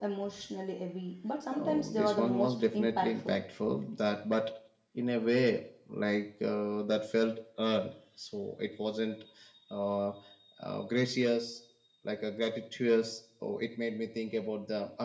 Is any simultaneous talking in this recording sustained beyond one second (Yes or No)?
Yes